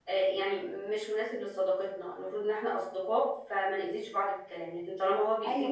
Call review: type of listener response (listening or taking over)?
listening